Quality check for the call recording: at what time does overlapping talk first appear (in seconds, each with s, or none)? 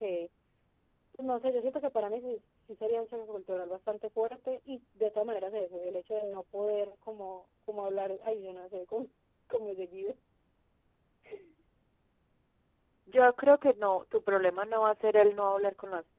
none